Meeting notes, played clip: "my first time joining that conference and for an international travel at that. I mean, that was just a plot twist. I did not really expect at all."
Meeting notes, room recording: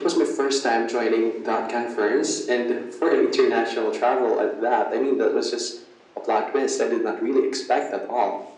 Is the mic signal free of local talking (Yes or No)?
Yes